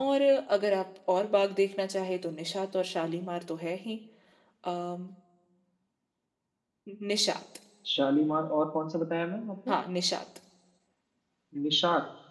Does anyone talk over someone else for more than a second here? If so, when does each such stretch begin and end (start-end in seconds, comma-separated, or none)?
none